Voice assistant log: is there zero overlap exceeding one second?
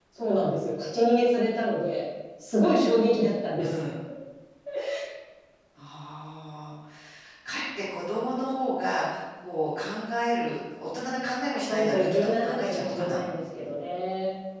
No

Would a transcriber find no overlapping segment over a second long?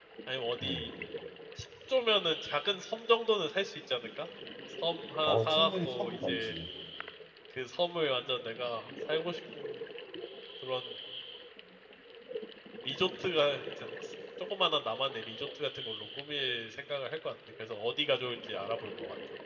No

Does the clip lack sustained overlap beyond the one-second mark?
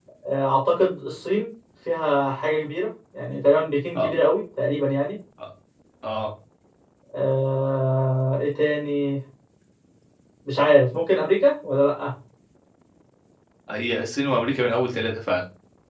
Yes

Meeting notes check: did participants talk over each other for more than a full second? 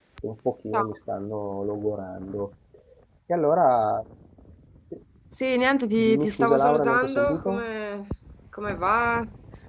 Yes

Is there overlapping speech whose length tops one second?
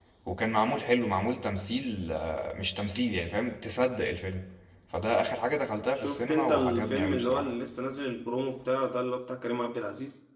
Yes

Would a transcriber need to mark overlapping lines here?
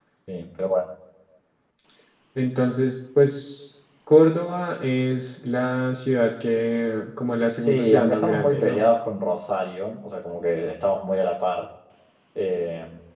Yes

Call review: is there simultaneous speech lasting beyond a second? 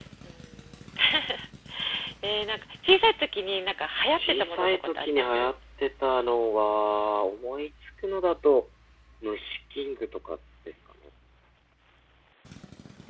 Yes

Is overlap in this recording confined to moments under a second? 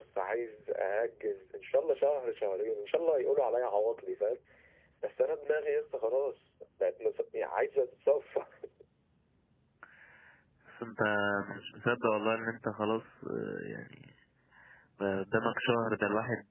Yes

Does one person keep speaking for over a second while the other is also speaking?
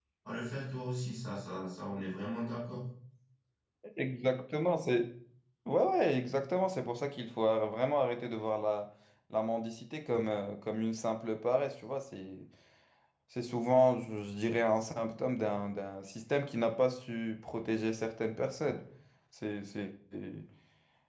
No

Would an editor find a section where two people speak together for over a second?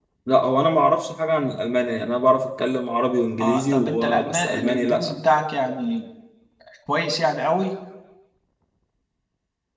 Yes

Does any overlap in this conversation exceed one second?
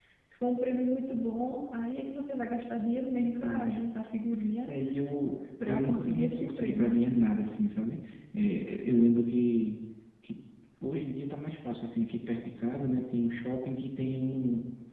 Yes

